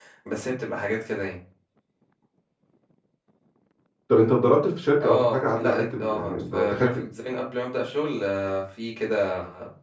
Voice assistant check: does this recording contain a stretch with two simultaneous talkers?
Yes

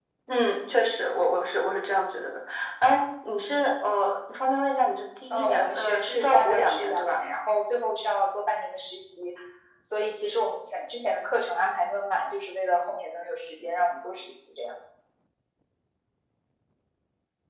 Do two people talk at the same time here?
Yes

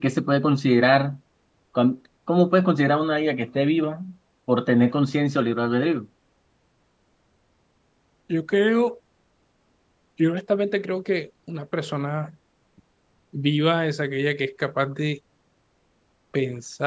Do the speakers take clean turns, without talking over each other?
Yes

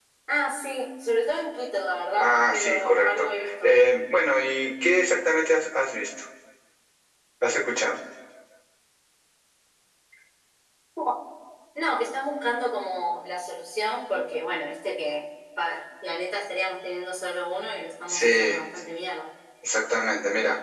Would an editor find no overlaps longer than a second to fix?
No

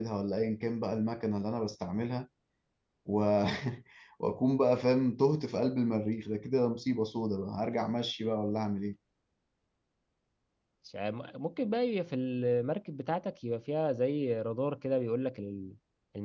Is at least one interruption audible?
No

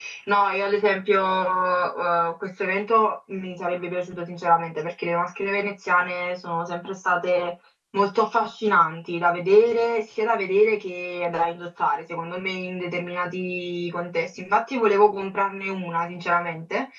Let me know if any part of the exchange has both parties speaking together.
No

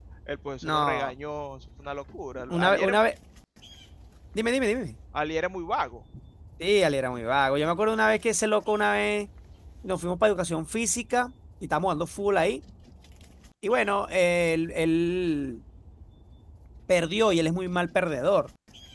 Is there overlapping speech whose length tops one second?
No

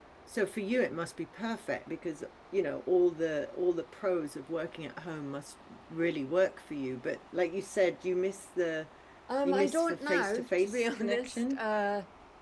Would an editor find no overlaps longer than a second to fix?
No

